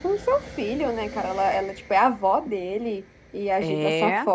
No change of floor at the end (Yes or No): Yes